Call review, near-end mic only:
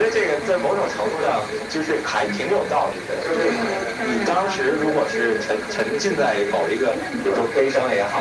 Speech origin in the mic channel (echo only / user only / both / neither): echo only